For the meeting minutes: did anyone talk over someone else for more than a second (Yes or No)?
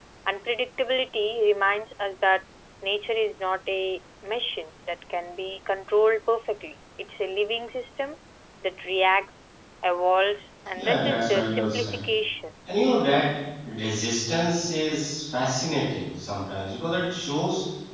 Yes